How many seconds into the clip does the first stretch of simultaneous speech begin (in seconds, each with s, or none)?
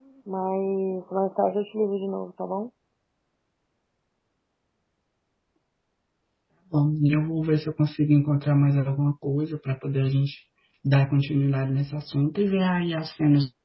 none